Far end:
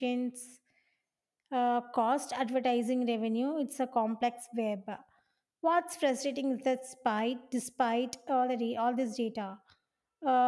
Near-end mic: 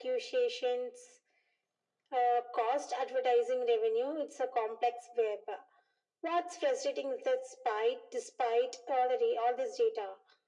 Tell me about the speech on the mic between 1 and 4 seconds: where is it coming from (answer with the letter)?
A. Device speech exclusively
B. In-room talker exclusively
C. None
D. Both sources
A